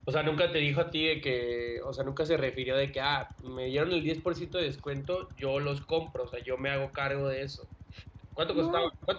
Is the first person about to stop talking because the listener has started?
No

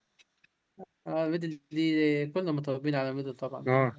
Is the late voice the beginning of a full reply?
Yes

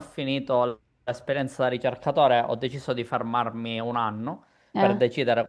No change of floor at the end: Yes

